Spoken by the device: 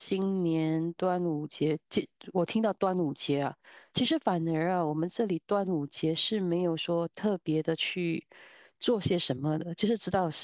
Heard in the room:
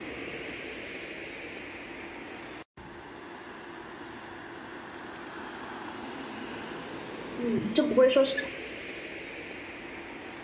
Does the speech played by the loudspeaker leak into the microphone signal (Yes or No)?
No